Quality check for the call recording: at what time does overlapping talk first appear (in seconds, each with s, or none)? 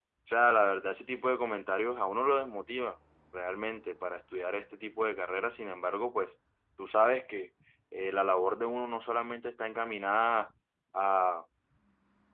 none